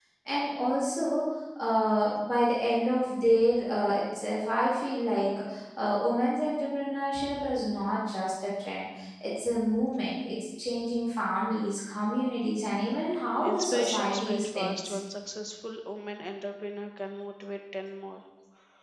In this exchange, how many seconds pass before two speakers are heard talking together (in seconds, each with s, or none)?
13.5 s